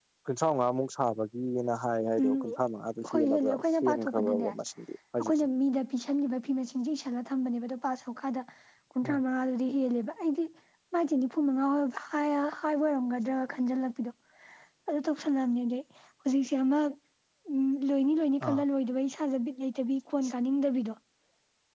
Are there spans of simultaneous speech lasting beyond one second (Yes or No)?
Yes